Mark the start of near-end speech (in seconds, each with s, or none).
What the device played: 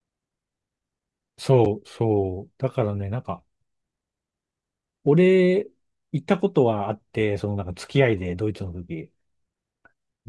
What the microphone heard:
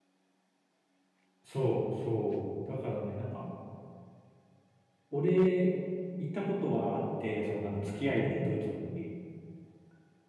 none